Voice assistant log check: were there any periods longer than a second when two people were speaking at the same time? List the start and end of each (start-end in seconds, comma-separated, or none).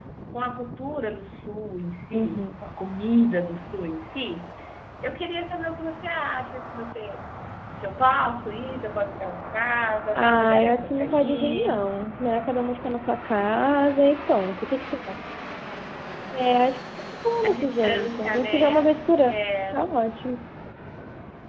10.2-11.9, 17.4-19.0